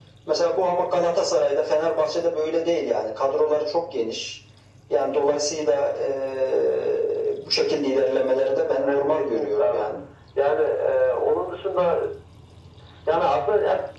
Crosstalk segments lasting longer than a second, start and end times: 8.4-9.8

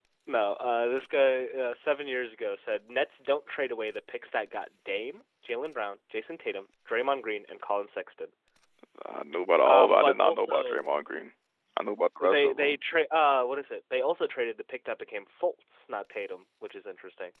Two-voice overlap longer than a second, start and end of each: 9.6-10.8

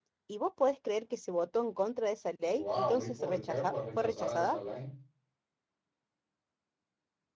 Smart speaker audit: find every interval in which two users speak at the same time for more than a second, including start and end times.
2.5-4.6

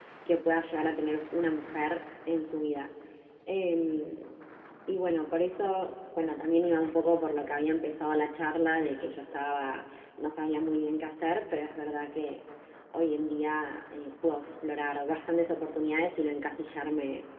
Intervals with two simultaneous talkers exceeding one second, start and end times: none

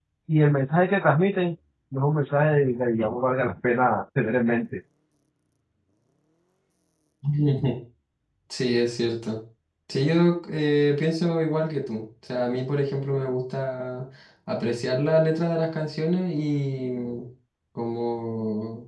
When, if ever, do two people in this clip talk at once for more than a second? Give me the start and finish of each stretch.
none

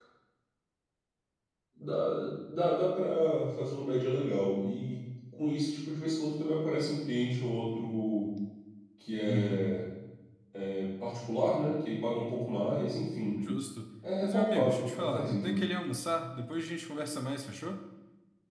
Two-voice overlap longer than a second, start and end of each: 14.2-15.6

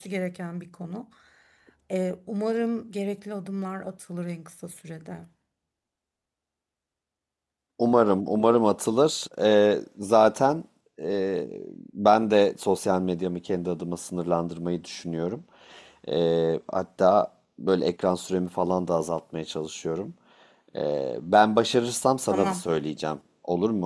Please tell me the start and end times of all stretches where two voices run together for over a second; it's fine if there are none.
none

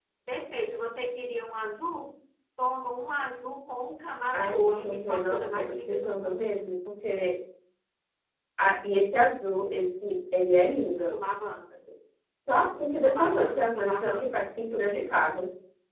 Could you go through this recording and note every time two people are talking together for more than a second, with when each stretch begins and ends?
4.3-6.5, 13.0-14.3

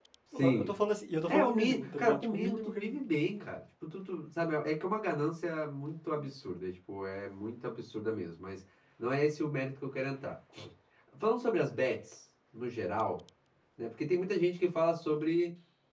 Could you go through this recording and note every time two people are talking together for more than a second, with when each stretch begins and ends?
1.3-3.1

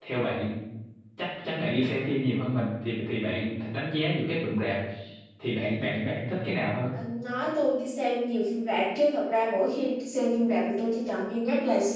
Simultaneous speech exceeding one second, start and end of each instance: none

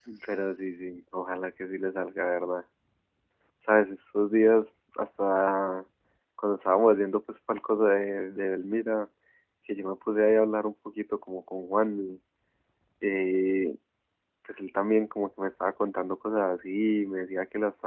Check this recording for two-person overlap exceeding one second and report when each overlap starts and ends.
none

